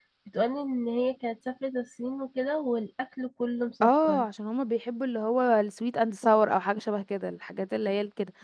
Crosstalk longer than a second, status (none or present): none